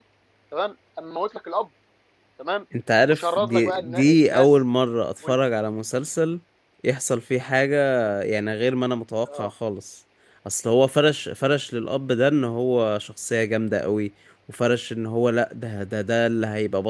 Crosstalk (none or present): present